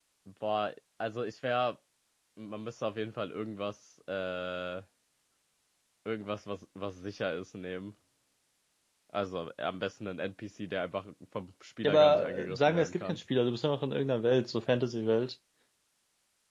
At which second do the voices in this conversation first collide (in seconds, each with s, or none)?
11.8 s